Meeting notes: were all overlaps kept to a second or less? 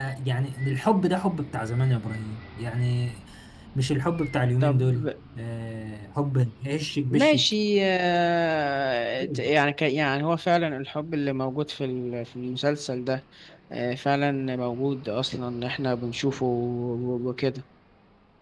Yes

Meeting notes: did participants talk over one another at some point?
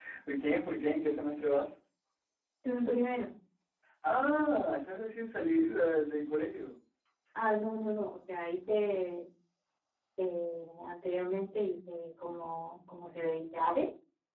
No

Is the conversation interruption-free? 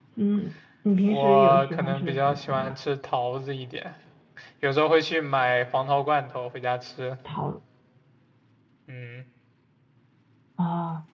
No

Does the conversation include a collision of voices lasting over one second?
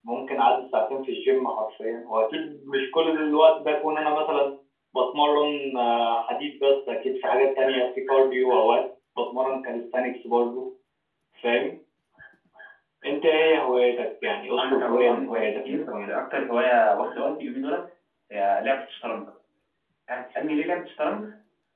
Yes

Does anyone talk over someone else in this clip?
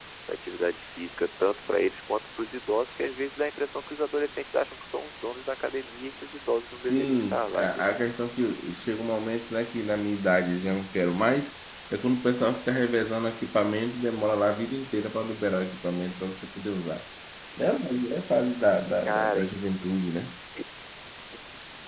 Yes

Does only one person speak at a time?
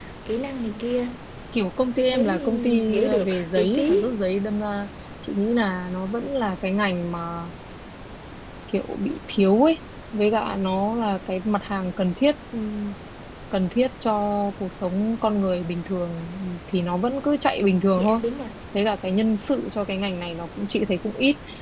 No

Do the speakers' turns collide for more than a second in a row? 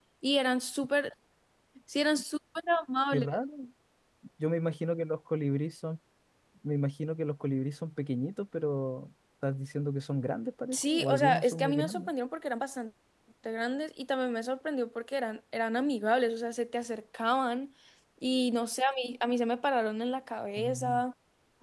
Yes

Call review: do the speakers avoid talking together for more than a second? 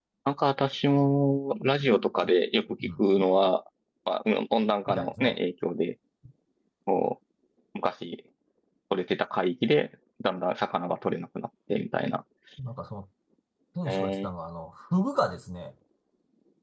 Yes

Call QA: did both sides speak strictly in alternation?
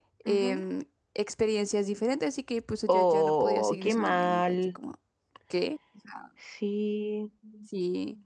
No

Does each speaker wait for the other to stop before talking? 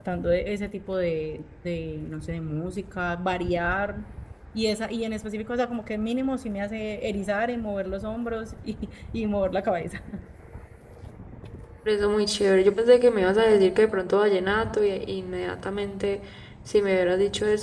Yes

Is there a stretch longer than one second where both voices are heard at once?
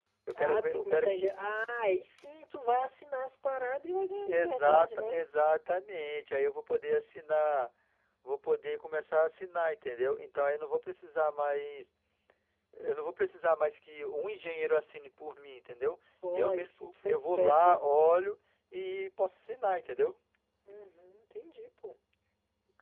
Yes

